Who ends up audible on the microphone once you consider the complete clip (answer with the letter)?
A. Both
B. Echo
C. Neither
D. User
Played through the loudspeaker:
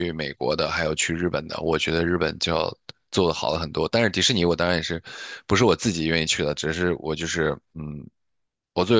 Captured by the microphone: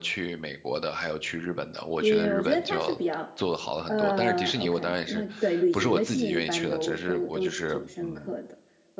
A